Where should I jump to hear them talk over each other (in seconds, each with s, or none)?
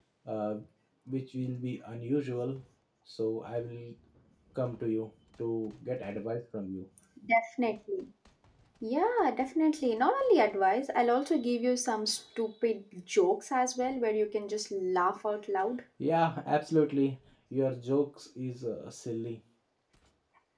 none